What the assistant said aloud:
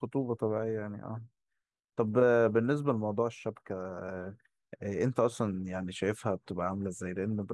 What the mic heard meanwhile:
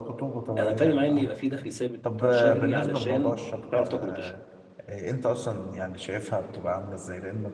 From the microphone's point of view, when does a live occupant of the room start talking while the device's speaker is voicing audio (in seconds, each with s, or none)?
0.6 s